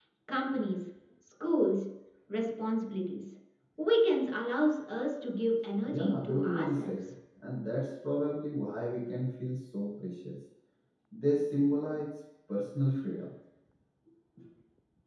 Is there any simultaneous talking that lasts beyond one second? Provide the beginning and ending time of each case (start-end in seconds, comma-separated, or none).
5.9-7.1